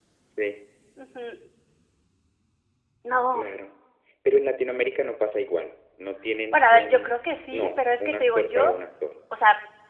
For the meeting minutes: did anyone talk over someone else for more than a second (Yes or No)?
Yes